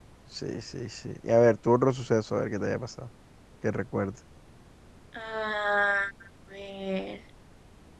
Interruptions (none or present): none